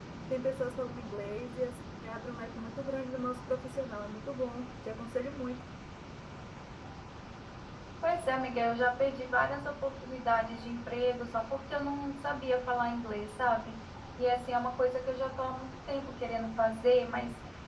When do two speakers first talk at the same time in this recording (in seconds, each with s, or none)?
none